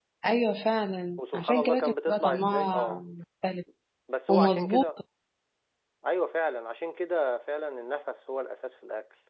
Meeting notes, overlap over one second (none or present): present